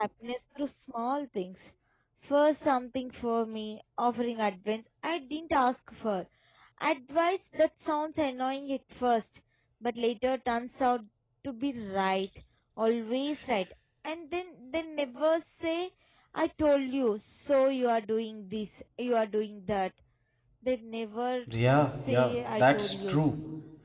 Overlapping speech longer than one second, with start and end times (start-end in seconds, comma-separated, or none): 21.9-23.2